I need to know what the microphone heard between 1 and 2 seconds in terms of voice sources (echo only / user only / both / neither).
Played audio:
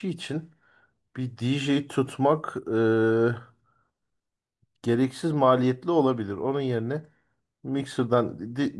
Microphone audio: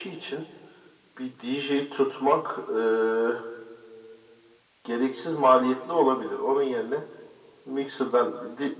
echo only